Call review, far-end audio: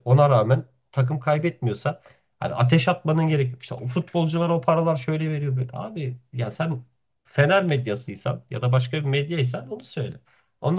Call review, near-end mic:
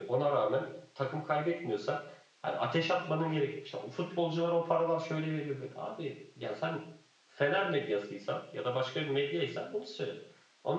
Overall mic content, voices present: echo only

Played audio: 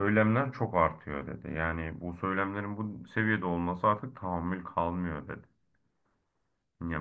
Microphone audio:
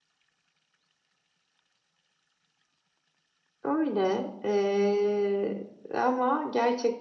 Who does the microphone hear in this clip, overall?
user only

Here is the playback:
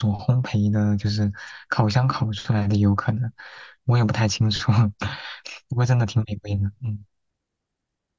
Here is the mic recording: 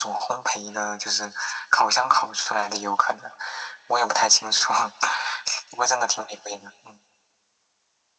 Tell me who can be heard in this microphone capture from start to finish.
echo only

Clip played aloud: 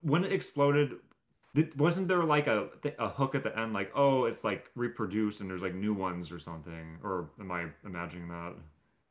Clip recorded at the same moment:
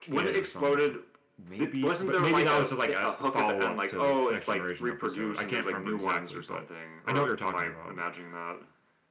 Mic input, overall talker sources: both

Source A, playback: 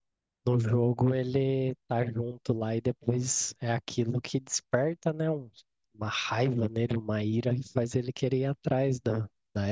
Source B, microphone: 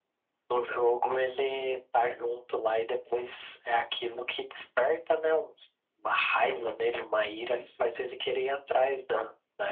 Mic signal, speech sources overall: echo only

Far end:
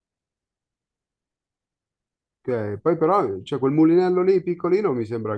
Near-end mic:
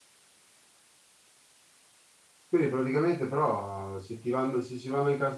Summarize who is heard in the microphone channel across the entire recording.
user only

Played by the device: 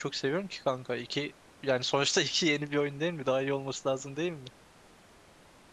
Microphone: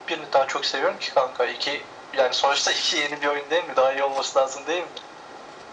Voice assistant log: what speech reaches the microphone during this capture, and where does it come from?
echo only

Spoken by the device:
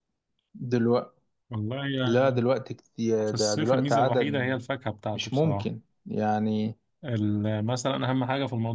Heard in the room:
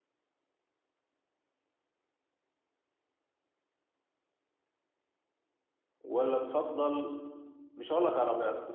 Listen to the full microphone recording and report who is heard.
user only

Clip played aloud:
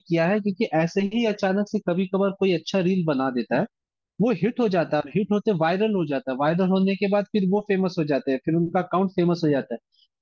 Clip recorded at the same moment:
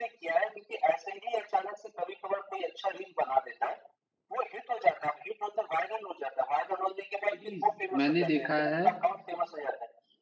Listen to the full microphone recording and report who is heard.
both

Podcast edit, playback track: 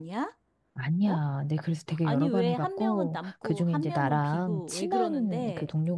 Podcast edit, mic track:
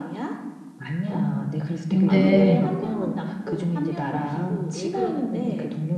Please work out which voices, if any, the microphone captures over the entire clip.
both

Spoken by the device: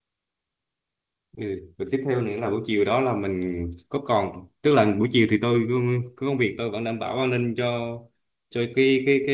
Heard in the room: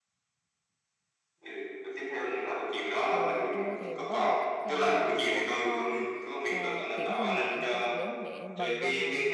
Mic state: both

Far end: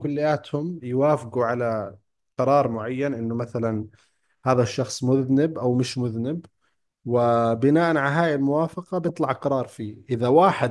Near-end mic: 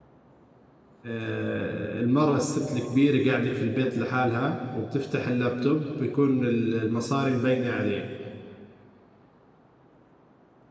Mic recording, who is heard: user only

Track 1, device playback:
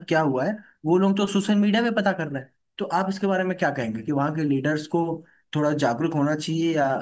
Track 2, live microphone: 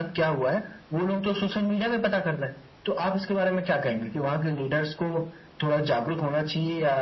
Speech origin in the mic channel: echo only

